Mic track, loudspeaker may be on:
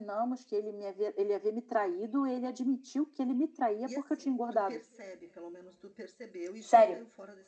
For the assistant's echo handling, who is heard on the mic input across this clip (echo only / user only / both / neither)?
both